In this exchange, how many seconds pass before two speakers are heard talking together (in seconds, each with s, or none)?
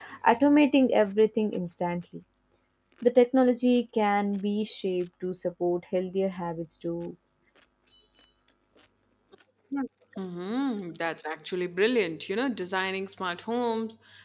none